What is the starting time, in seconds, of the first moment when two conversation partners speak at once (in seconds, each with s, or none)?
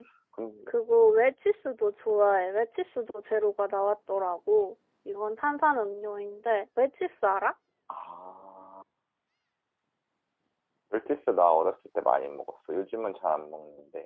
none